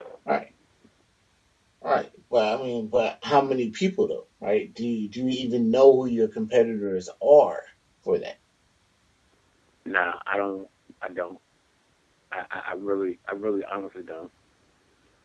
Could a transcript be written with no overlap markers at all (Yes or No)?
Yes